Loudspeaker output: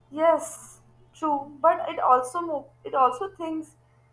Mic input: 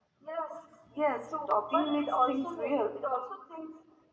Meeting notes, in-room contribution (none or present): present